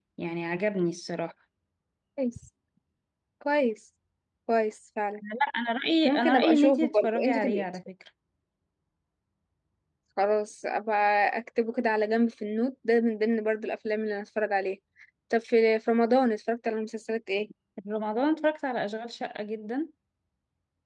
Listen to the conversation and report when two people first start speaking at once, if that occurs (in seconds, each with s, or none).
6.0 s